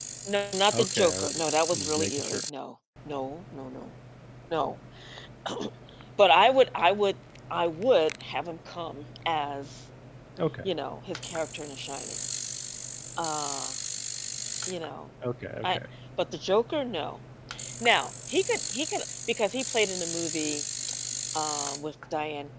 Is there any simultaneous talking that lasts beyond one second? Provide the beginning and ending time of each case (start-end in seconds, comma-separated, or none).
0.7-2.4